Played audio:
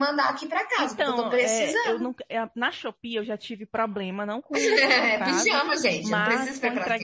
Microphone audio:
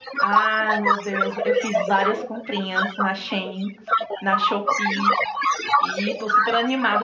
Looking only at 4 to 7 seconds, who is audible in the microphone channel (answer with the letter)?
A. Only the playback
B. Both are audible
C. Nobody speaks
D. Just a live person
B